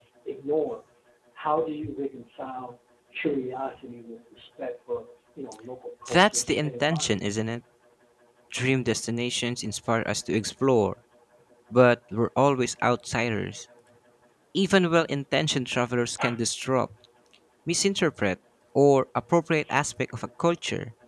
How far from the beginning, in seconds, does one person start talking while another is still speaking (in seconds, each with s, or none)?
6.1 s